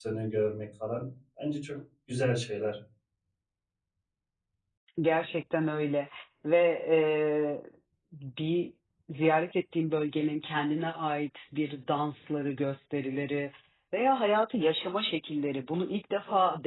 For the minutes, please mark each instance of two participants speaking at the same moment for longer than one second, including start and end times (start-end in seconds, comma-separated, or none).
none